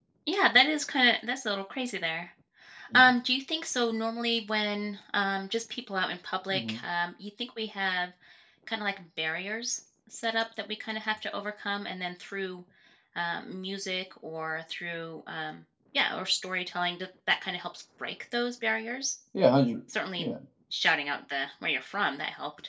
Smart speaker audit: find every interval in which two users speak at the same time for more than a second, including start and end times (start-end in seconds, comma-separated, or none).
none